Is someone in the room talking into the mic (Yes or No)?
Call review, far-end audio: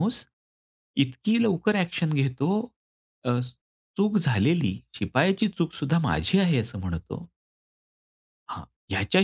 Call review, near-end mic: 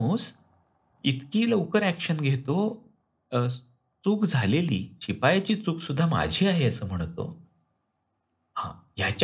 No